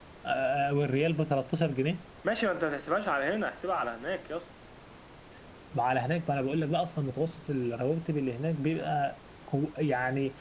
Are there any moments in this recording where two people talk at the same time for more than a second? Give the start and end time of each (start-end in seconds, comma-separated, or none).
none